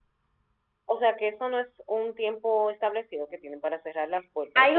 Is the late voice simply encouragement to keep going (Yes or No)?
No